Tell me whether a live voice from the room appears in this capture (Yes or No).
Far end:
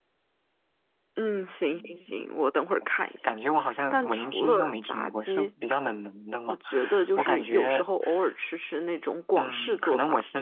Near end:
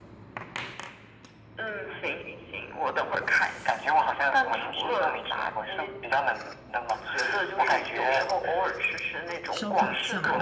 Yes